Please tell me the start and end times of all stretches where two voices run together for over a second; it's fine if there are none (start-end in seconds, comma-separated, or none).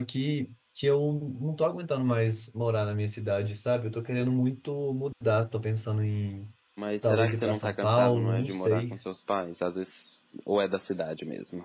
7.0-9.0